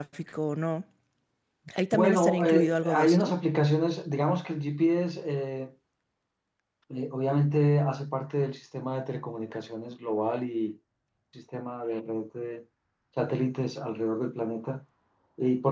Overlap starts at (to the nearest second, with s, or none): 2 s